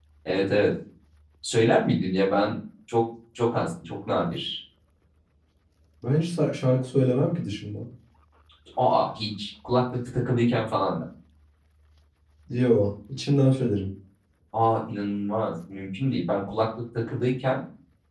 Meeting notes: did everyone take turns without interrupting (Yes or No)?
Yes